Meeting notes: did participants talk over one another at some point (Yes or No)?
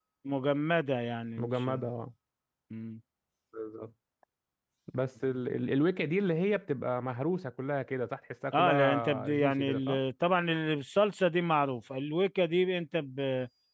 Yes